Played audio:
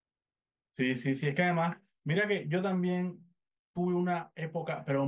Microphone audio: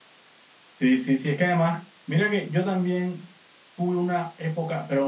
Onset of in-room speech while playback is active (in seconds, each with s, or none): none